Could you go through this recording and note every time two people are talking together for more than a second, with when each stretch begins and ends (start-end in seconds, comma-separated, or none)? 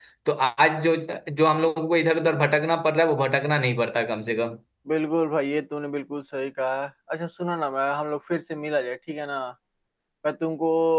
none